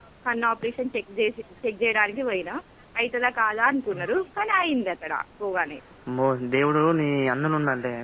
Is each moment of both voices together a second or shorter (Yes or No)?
Yes